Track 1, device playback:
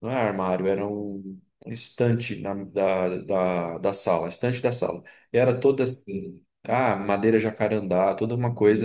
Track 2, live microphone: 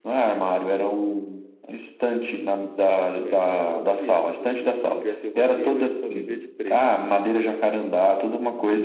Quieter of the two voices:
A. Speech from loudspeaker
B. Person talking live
B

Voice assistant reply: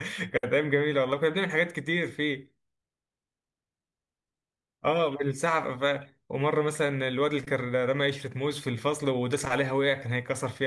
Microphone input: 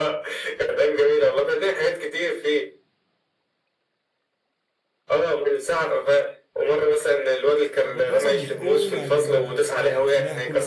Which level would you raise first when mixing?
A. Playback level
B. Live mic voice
B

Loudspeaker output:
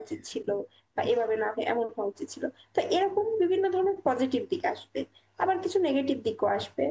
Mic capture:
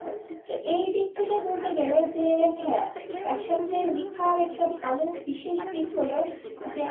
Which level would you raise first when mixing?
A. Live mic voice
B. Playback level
B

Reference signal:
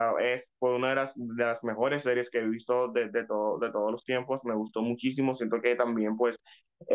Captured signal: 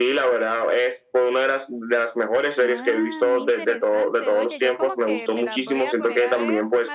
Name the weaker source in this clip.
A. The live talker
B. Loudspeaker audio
A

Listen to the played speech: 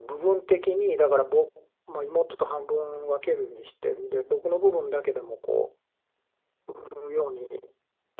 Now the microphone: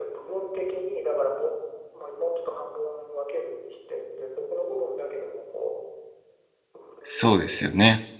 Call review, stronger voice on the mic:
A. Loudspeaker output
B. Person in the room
B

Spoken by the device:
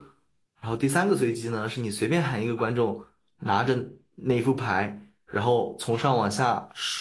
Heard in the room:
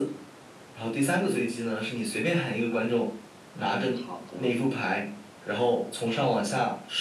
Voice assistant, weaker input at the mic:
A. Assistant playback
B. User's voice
B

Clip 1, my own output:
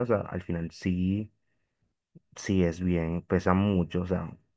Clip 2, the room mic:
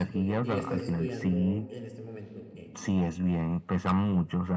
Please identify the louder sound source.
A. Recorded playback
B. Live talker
A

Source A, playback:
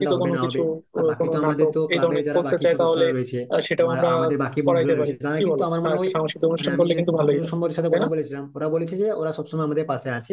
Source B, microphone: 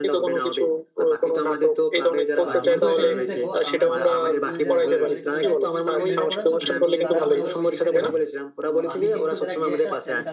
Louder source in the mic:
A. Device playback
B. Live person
A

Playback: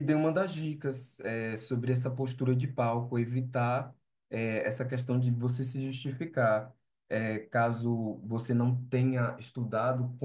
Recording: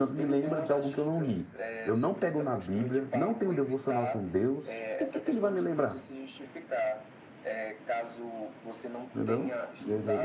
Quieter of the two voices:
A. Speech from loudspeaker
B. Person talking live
A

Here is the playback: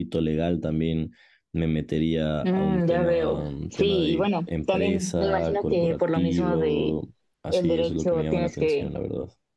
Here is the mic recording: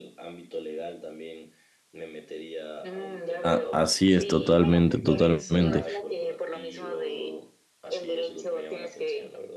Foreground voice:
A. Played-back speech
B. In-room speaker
B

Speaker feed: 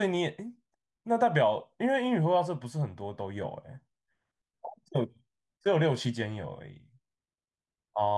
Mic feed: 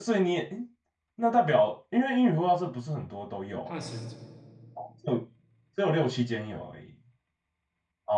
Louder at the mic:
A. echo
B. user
A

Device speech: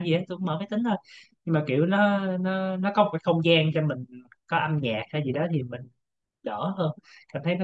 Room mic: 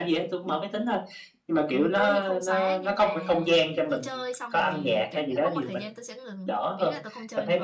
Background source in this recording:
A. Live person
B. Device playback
A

